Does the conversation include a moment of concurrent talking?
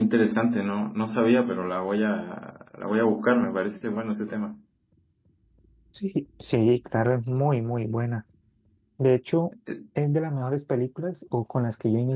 No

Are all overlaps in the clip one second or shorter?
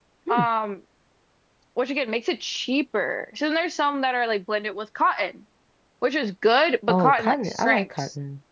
No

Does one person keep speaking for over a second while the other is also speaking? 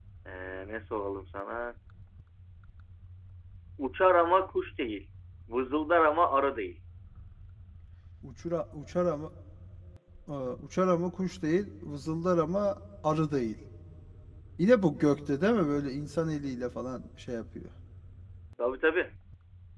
No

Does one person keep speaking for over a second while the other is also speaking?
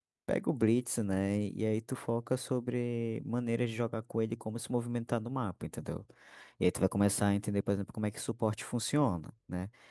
No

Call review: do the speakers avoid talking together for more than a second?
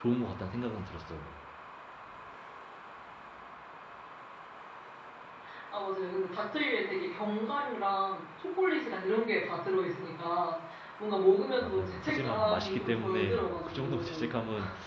No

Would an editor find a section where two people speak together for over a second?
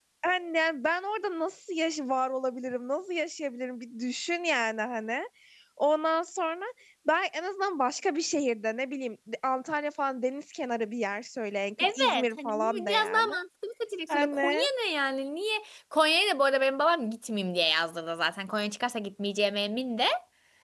Yes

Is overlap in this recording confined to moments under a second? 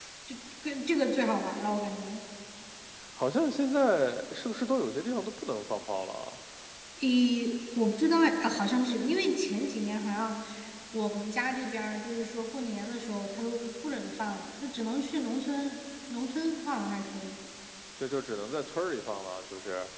Yes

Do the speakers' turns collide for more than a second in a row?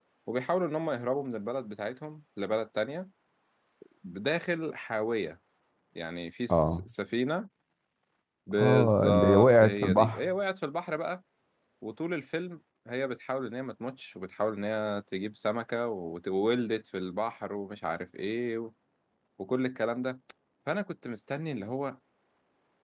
Yes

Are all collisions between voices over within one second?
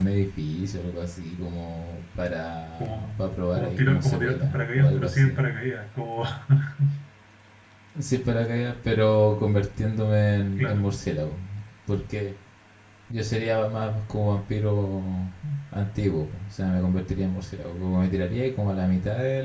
No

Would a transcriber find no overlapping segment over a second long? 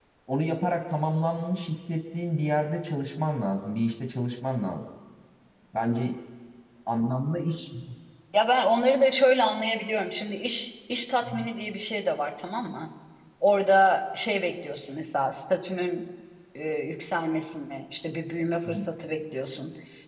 Yes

